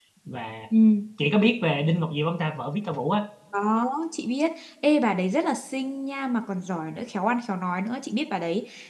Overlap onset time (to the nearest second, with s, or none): none